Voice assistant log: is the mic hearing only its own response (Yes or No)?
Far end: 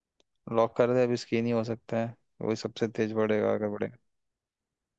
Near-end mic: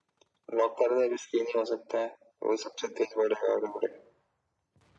Yes